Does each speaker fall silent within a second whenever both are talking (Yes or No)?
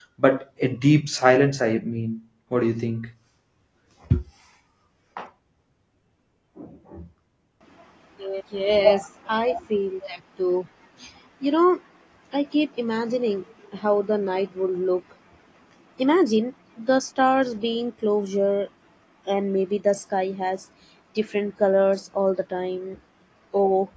Yes